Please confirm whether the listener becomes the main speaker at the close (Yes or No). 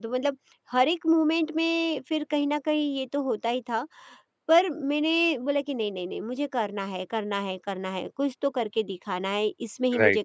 No